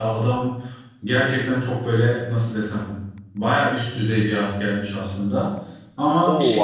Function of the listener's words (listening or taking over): taking over